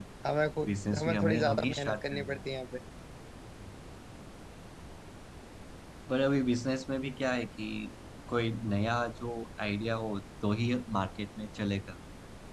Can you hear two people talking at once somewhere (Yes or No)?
Yes